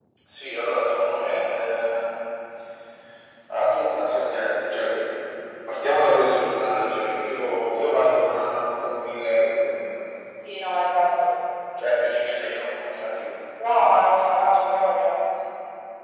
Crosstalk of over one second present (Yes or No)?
No